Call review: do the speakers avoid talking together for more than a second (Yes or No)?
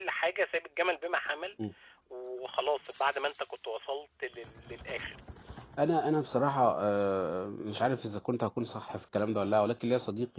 Yes